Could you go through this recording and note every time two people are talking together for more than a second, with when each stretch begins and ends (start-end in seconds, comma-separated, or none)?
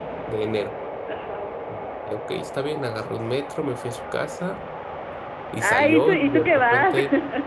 5.6-7.0